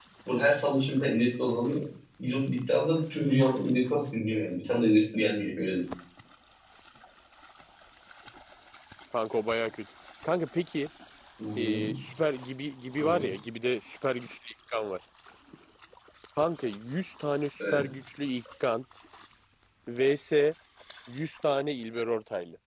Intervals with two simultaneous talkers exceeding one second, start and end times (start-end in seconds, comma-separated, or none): none